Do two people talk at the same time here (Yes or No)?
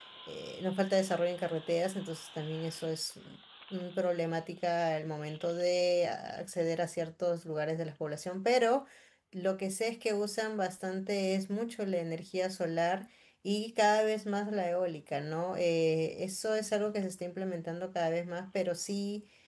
No